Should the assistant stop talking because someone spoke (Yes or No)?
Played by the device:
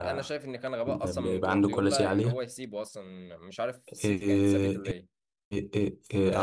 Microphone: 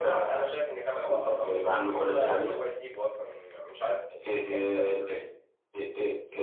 No